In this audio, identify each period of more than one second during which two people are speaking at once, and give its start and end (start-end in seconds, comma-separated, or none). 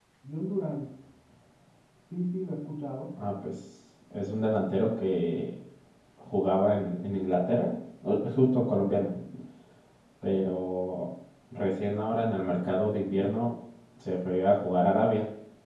none